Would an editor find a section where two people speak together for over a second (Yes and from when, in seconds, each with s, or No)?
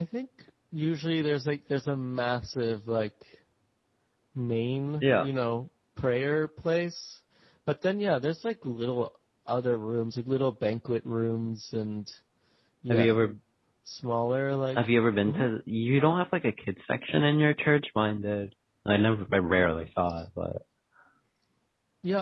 No